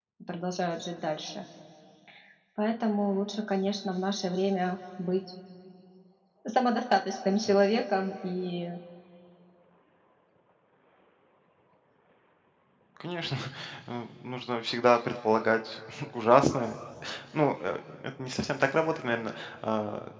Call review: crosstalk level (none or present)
none